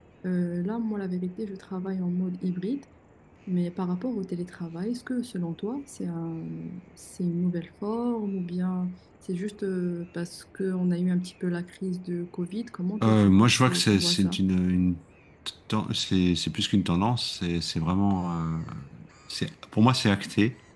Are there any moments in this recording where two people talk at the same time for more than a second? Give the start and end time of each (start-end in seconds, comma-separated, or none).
13.0-14.4